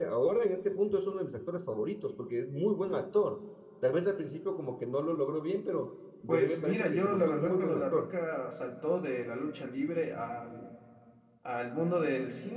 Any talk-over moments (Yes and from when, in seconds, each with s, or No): Yes, from 6.3 s